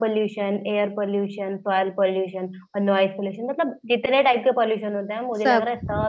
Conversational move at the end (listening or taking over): listening